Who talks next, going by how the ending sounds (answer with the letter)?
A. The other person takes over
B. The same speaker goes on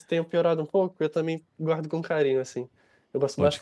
A